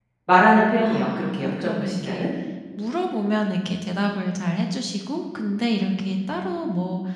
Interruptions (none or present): present